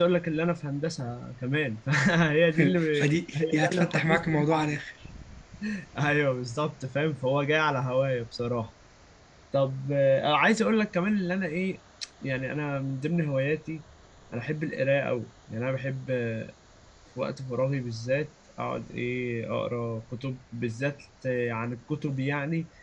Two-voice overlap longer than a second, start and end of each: 3.3-4.8

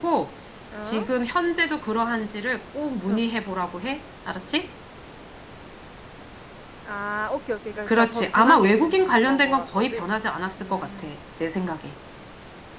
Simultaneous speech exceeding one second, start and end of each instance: 7.9-10.1

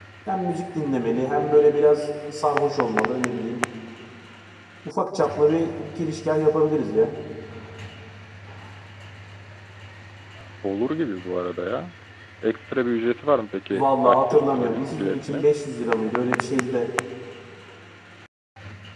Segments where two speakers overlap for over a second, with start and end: 13.7-15.4

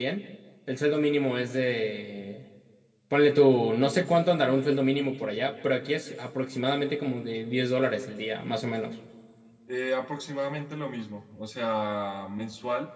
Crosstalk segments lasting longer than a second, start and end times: none

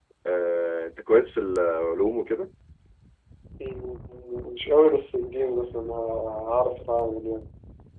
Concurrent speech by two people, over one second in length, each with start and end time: none

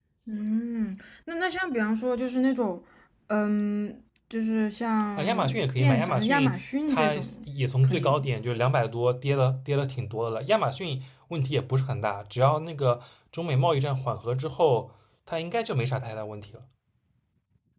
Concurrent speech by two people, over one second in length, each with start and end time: 5.2-7.2

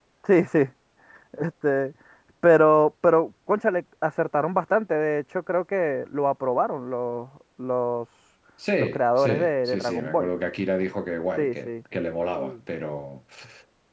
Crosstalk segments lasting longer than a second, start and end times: 8.8-10.3

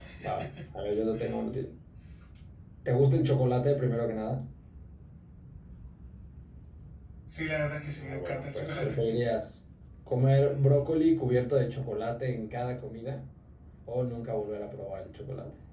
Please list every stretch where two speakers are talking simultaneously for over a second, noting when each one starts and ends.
8.0-9.2

